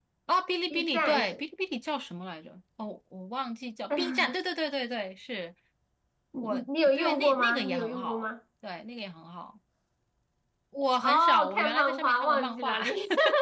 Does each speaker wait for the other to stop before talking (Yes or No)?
No